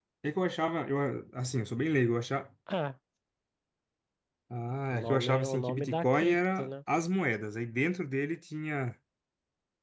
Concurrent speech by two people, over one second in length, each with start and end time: 4.9-6.7

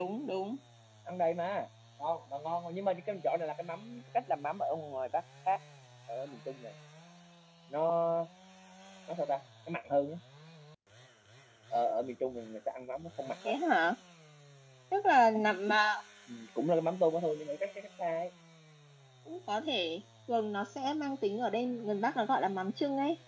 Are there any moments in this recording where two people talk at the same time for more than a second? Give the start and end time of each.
none

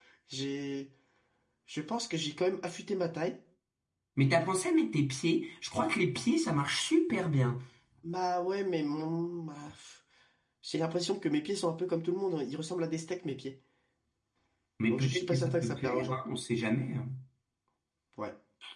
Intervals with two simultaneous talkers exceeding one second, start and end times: 14.9-16.2

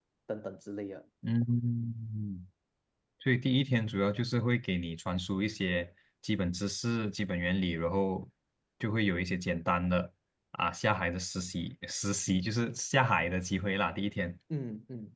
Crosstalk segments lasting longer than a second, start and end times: none

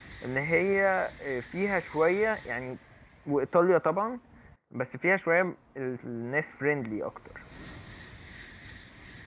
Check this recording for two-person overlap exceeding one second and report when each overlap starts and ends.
none

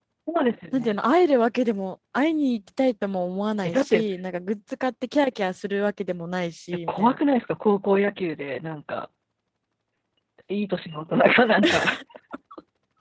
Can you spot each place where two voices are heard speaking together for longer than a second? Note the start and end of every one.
none

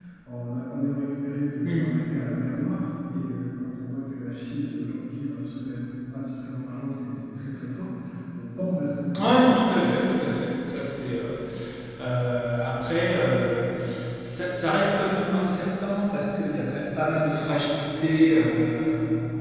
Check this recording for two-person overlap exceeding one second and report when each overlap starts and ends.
9.2-10.4

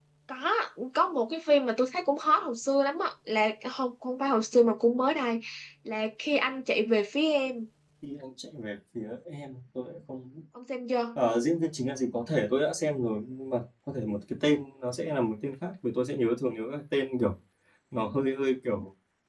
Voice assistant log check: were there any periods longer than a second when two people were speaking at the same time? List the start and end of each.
none

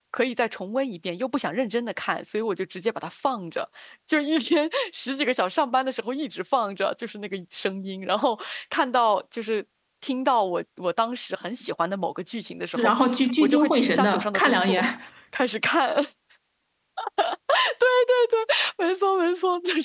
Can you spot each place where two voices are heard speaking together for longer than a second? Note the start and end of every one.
13.4-14.8

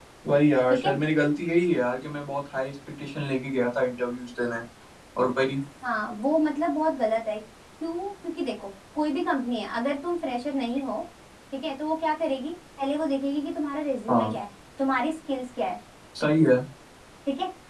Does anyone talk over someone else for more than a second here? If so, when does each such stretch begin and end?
none

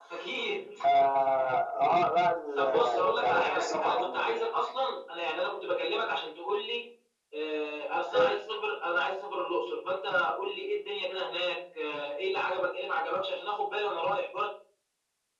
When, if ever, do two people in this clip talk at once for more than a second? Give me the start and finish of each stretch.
2.6-4.4

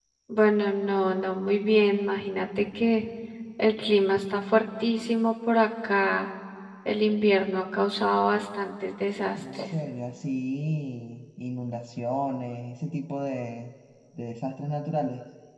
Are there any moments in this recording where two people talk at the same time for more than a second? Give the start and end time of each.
none

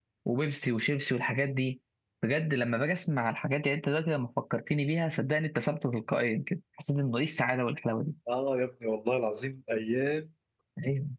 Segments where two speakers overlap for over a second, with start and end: none

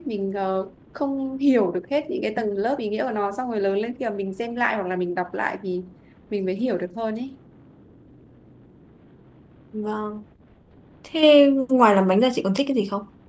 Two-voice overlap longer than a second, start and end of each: none

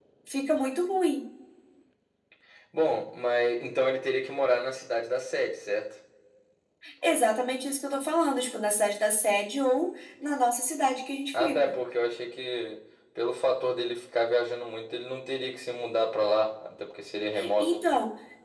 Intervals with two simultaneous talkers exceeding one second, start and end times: none

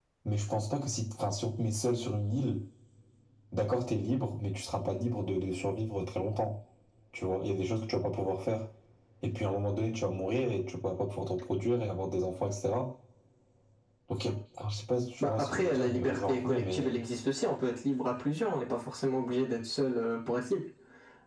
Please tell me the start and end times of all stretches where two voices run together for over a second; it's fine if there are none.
15.2-17.0

